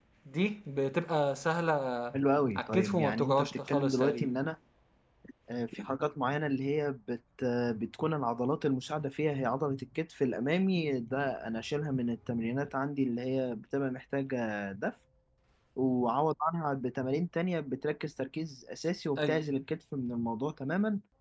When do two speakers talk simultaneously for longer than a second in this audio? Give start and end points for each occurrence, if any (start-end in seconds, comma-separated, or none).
2.6-4.3